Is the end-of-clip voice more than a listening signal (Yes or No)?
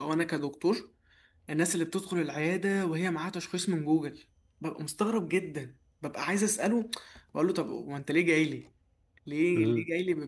No